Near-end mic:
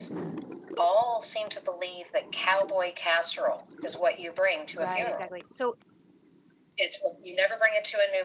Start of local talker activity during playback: 5 s

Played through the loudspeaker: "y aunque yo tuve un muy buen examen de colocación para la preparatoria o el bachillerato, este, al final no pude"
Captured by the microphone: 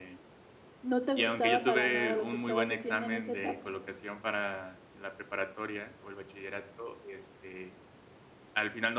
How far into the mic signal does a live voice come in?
1 s

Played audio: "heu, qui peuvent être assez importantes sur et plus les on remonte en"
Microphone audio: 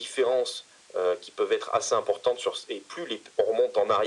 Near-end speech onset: none

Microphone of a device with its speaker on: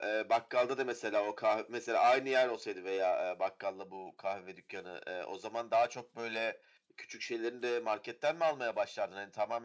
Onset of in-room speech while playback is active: none

